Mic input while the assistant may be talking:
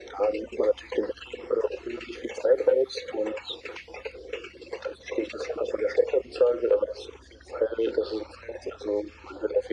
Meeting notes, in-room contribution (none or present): none